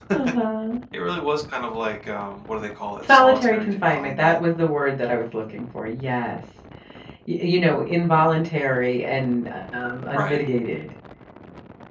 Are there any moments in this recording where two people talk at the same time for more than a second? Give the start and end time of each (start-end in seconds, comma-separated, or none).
3.1-4.4